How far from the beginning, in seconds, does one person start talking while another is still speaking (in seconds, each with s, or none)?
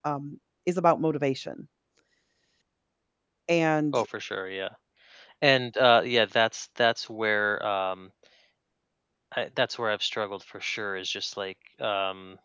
none